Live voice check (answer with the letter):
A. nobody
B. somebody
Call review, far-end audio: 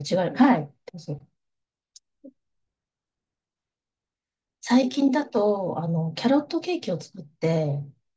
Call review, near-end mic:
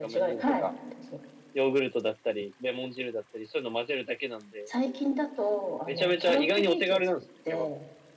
B